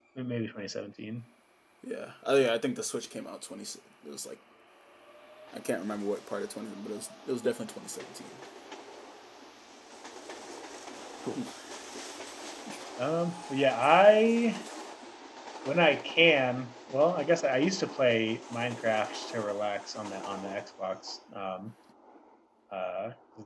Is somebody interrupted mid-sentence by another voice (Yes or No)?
No